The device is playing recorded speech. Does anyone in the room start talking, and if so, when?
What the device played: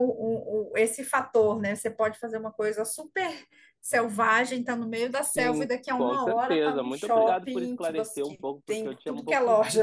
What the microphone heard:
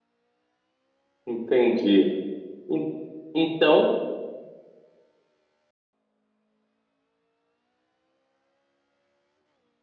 1 s

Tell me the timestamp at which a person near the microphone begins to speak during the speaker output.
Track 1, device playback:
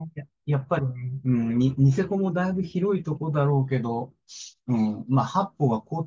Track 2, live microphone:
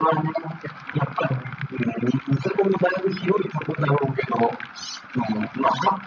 none

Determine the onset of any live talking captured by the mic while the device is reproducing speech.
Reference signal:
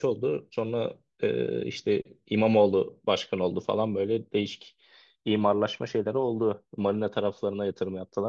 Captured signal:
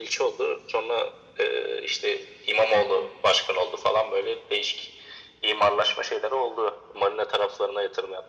none

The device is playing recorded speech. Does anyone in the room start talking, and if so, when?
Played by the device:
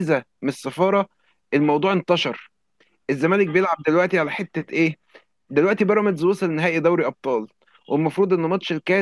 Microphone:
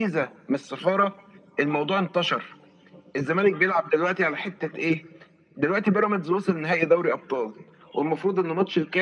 none

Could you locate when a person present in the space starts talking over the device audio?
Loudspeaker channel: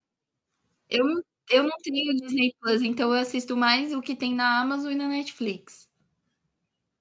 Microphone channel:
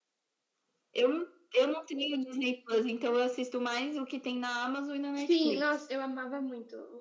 5 s

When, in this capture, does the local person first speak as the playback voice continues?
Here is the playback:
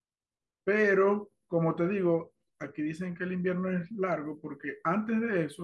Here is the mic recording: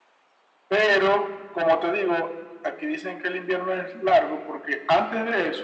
none

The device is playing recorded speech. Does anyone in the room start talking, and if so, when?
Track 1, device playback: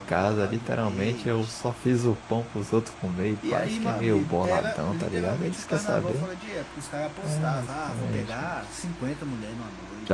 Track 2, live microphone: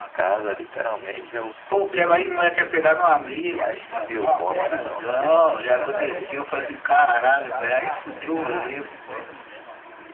2 s

